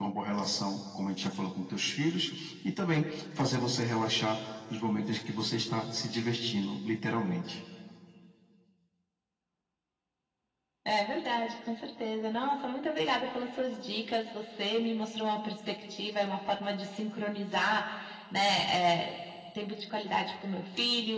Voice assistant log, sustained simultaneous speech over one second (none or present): none